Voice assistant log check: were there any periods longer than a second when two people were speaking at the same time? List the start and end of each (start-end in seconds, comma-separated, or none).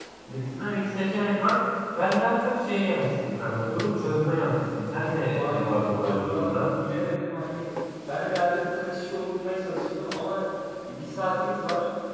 5.3-6.7